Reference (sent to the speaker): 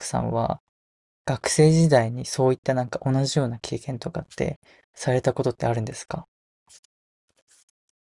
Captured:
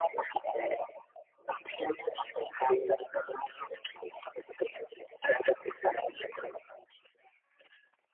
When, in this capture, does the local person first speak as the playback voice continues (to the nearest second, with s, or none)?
none